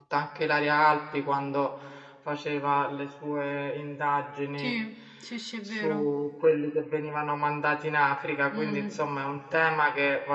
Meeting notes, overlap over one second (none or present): none